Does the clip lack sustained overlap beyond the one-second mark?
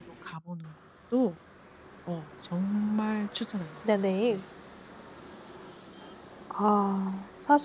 Yes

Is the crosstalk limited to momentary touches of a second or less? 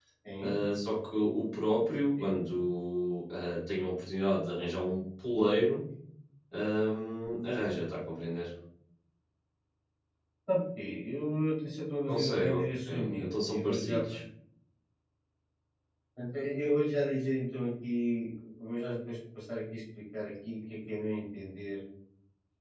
No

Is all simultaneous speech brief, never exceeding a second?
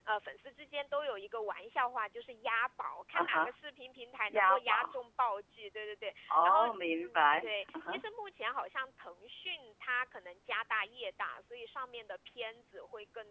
No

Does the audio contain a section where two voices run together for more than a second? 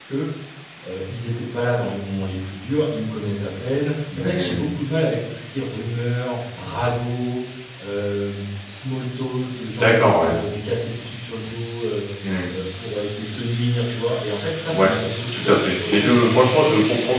Yes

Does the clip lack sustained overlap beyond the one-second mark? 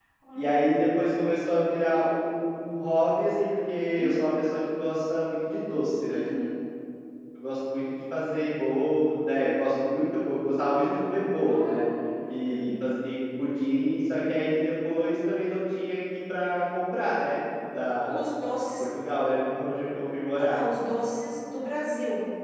Yes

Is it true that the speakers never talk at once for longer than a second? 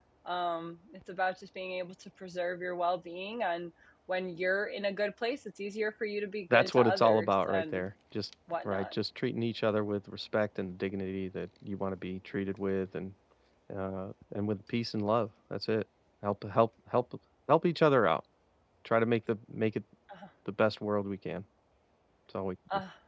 No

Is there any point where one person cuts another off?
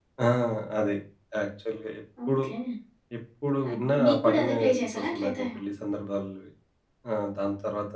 Yes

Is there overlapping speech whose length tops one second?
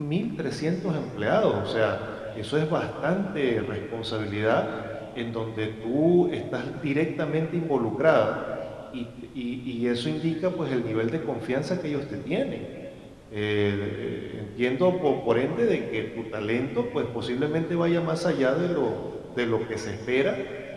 No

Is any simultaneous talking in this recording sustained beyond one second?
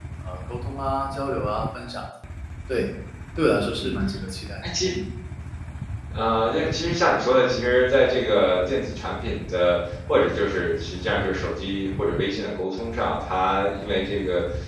No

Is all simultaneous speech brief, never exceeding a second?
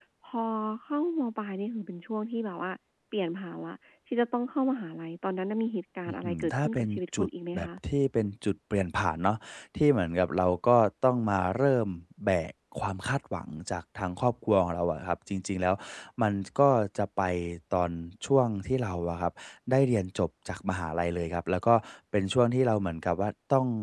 No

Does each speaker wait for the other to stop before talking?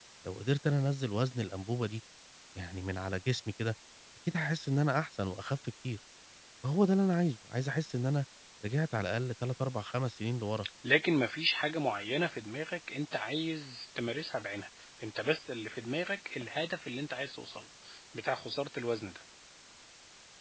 Yes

